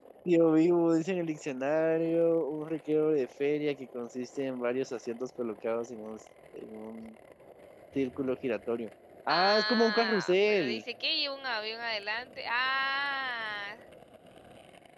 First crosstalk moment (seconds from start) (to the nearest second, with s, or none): 9 s